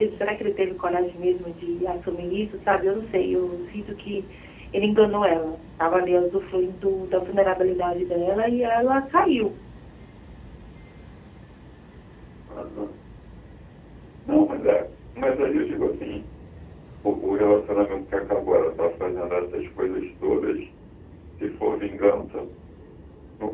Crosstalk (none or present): none